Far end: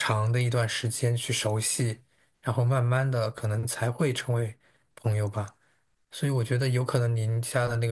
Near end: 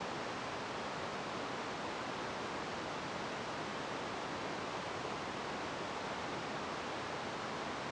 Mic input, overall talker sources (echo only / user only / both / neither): neither